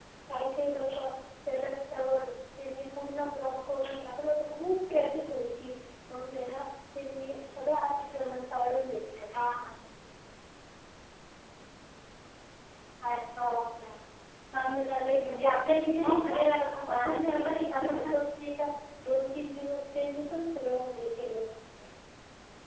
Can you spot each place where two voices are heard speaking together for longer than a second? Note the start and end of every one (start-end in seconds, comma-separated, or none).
16.8-18.1